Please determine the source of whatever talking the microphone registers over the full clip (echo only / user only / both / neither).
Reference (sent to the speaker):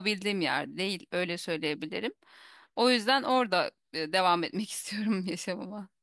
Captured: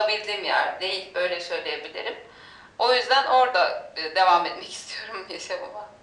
echo only